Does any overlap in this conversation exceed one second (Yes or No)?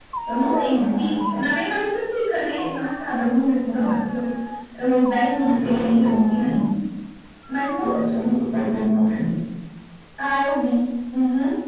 Yes